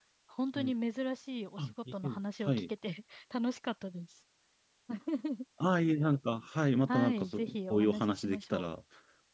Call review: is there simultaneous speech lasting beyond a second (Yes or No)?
Yes